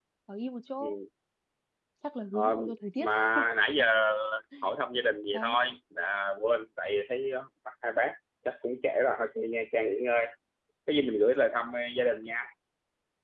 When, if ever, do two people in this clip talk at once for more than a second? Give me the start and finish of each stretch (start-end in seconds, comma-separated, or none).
none